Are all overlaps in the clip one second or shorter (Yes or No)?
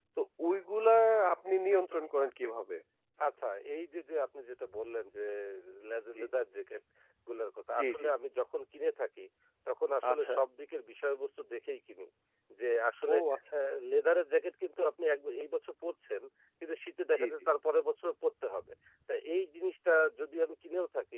Yes